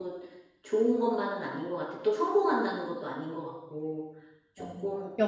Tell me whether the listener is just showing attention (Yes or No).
No